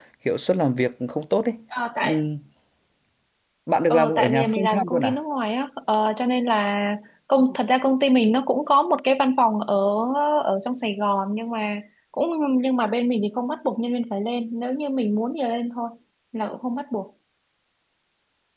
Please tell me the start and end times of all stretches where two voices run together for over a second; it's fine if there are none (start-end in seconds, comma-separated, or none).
3.9-5.2